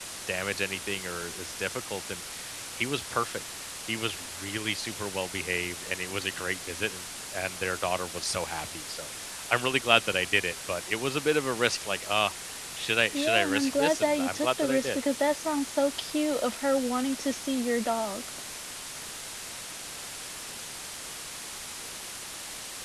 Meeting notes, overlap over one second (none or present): present